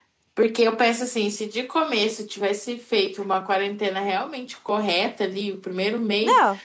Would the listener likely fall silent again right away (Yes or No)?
Yes